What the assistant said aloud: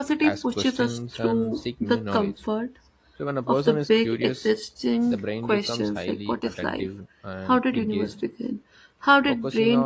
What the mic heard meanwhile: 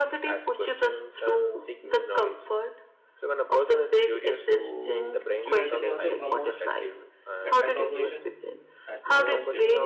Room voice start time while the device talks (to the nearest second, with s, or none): 4 s